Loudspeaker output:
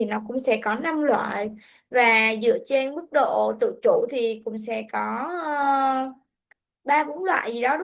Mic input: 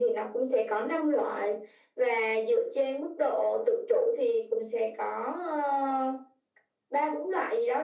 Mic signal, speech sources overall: echo only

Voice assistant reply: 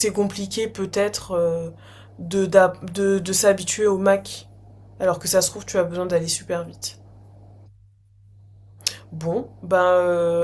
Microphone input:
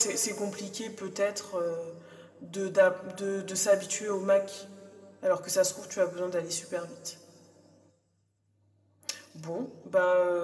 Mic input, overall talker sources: echo only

